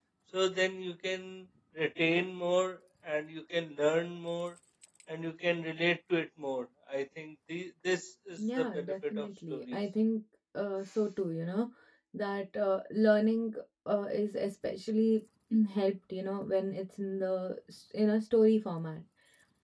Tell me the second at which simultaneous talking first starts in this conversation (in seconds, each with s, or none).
8.4 s